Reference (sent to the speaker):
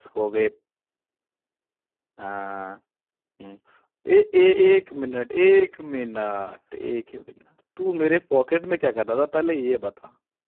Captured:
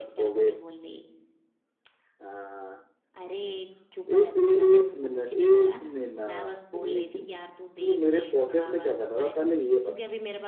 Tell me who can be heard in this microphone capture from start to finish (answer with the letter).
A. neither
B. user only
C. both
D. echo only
C